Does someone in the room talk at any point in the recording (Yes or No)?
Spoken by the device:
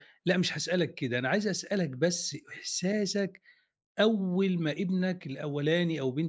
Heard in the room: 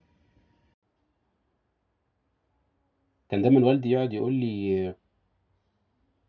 Yes